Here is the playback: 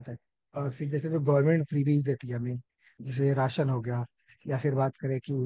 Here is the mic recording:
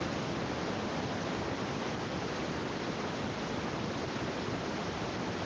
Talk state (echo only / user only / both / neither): neither